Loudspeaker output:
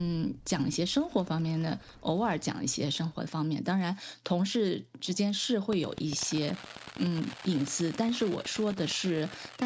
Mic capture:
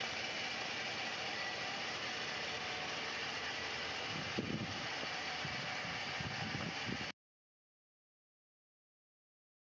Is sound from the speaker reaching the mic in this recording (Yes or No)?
No